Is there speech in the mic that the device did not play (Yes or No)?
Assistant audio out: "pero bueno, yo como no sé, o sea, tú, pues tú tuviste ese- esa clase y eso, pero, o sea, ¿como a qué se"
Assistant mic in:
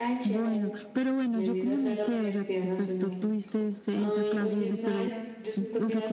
Yes